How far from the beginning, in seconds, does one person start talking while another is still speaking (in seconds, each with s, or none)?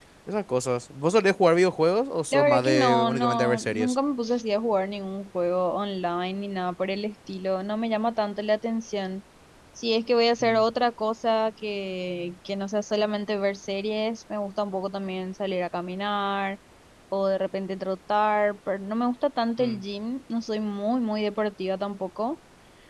2.3 s